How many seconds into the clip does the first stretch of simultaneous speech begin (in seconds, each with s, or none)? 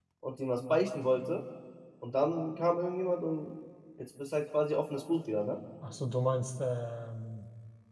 none